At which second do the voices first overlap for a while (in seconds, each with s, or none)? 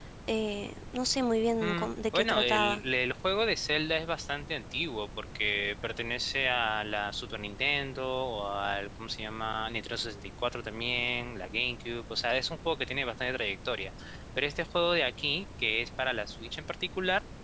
1.6 s